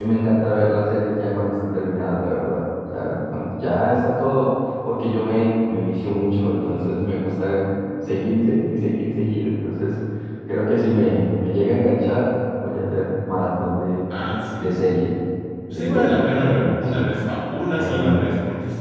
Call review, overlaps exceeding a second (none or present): present